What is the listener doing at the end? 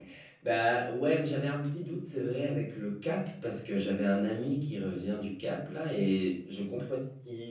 listening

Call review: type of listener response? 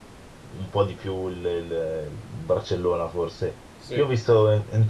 listening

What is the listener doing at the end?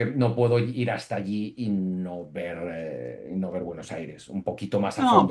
taking over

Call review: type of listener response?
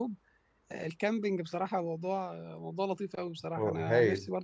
listening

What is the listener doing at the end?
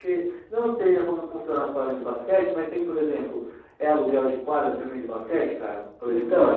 taking over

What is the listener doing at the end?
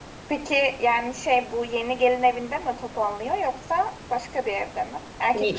taking over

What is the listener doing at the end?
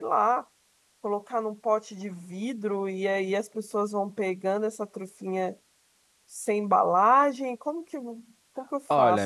taking over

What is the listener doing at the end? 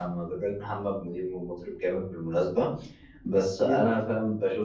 listening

